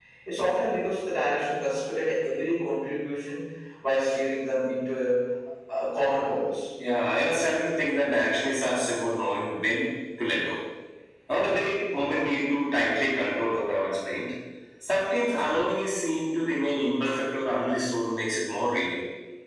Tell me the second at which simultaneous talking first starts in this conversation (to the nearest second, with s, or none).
none